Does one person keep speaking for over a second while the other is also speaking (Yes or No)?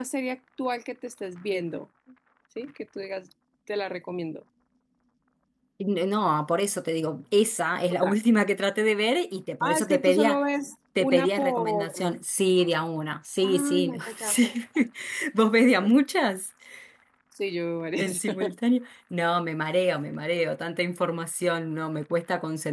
Yes